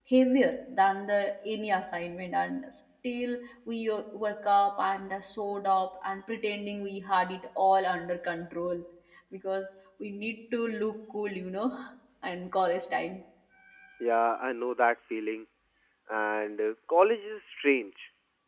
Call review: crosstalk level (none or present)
none